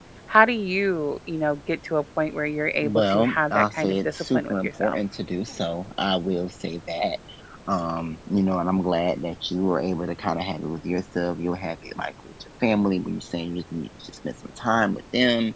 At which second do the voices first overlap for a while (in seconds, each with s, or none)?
2.8 s